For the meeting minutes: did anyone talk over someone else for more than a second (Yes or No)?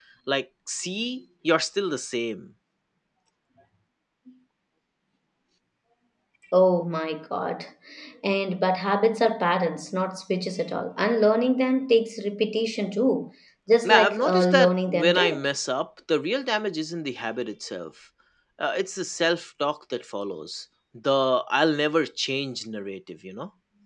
Yes